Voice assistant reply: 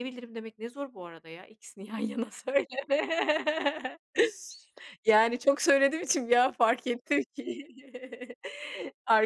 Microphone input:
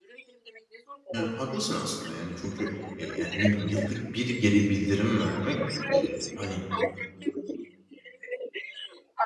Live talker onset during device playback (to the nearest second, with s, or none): 1 s